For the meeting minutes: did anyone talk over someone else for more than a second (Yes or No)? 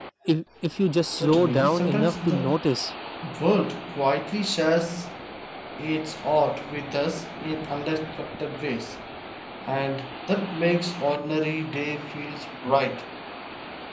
Yes